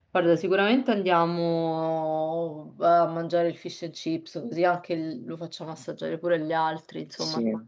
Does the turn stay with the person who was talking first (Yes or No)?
No